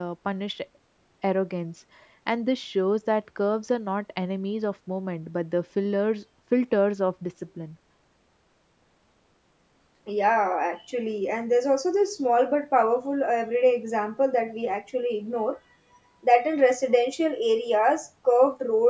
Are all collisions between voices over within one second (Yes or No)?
Yes